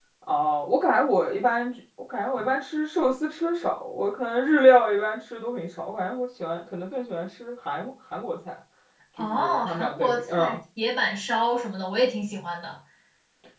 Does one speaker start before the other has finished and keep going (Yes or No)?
Yes